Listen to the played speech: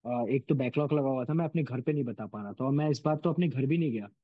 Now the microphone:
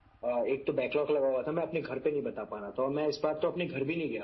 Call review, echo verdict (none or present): present